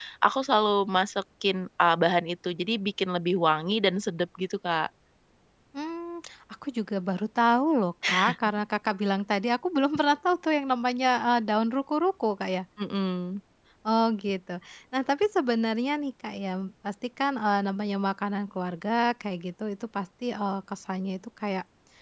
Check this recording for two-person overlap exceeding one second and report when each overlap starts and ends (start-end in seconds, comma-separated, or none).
none